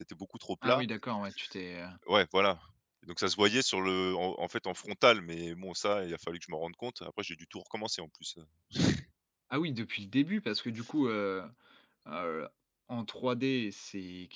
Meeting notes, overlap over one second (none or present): none